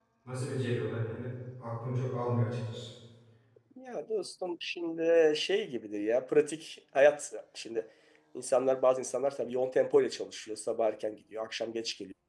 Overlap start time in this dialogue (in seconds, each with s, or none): none